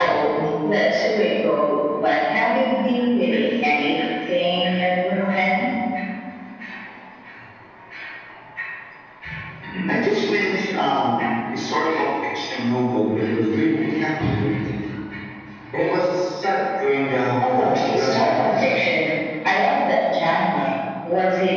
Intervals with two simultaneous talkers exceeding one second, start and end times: 17.4-18.7

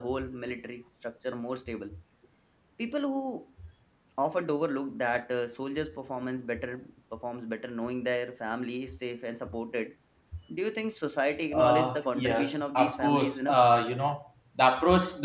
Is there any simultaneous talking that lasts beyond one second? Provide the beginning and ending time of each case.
11.5-13.6

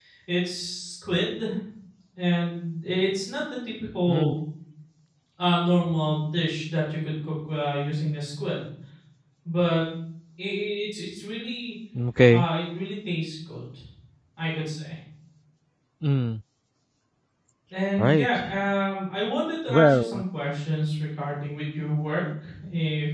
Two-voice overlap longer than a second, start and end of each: none

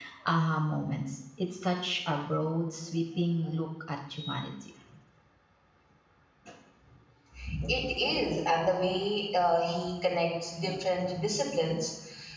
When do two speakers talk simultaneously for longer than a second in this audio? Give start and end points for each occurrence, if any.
none

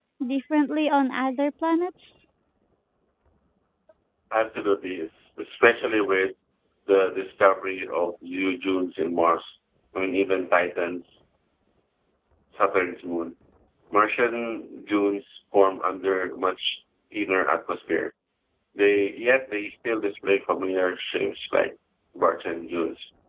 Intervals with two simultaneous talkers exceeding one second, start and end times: none

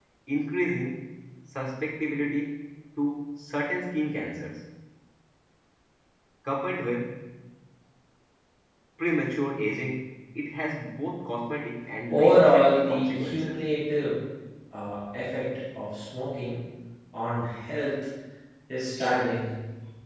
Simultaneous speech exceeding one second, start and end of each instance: 12.1-13.6

